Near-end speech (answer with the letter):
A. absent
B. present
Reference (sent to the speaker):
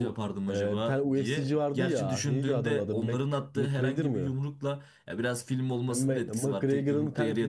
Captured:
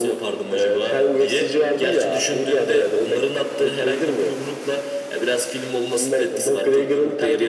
A